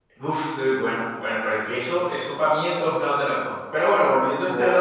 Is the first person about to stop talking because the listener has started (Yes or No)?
Yes